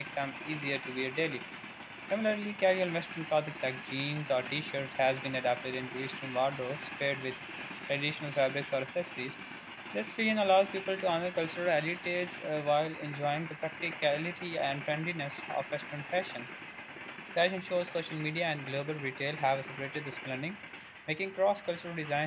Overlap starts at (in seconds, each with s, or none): none